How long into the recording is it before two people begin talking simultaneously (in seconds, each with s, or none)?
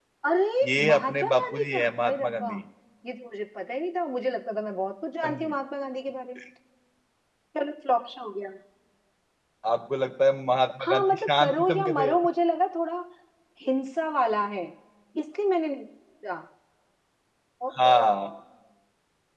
0.9 s